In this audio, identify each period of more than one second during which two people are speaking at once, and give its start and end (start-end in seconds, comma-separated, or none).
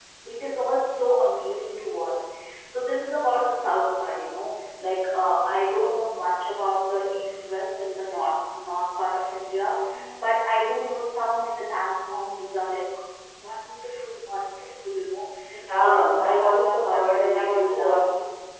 15.8-18.0